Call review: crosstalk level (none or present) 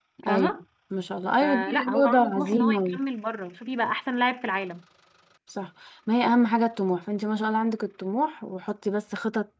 present